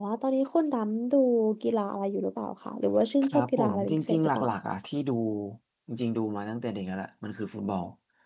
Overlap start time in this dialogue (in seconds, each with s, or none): 3.2 s